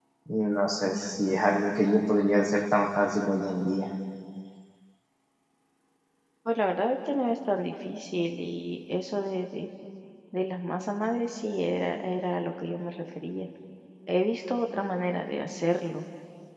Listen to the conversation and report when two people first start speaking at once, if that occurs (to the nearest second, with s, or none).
none